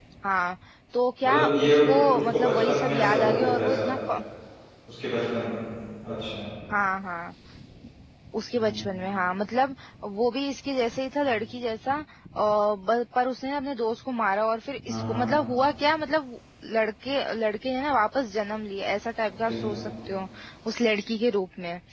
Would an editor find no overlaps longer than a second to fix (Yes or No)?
No